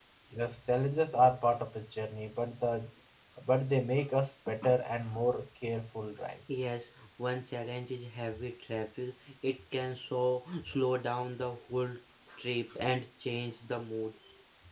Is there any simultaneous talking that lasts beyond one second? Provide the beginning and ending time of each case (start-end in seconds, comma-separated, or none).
none